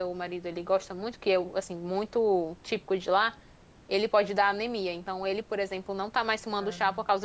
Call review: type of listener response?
listening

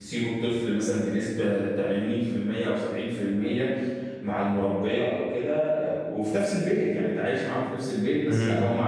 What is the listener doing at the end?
listening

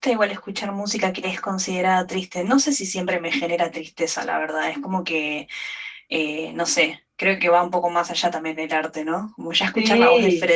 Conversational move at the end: listening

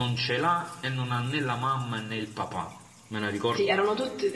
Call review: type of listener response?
taking over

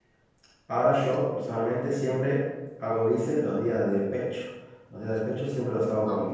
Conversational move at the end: listening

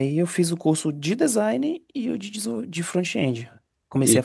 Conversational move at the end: taking over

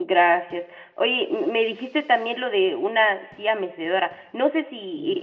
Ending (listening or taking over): listening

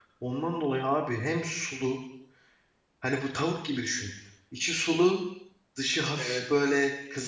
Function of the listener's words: listening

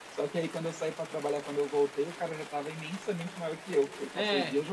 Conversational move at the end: taking over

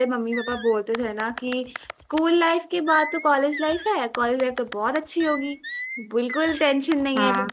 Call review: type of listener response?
listening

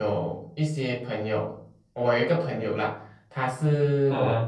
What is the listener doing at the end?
listening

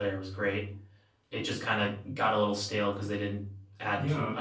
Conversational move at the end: taking over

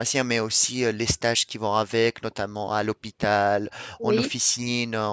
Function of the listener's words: listening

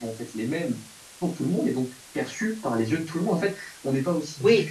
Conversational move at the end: listening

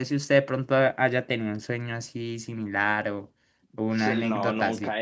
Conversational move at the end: taking over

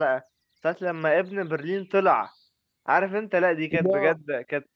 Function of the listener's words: listening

